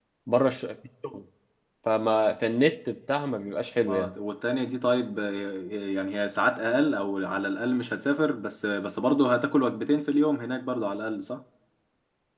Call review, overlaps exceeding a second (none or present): none